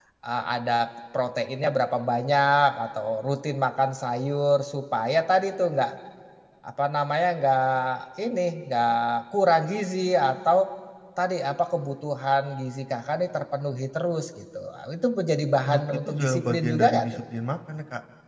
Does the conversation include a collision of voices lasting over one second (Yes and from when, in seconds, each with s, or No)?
Yes, from 15.6 s